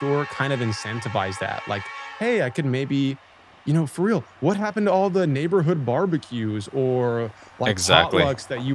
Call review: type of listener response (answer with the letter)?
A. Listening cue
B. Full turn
A